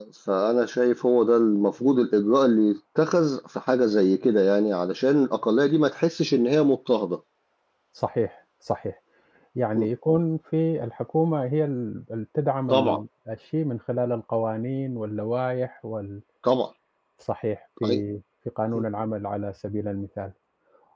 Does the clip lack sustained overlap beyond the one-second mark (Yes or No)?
Yes